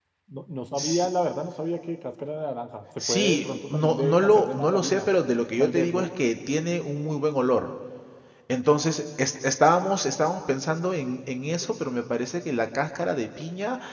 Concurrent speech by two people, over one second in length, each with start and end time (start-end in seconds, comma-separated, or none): 3.1-5.1